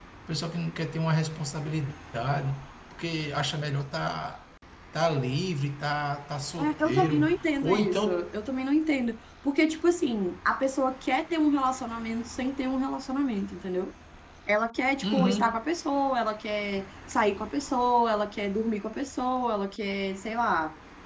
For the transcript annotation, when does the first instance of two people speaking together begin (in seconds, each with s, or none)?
6.6 s